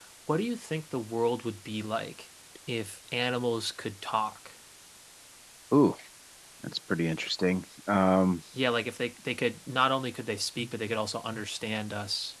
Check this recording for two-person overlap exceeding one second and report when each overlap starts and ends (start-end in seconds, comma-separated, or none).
none